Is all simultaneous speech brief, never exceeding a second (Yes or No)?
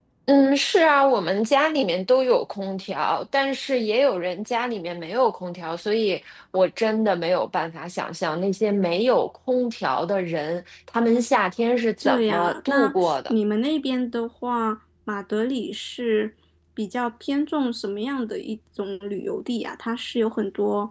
No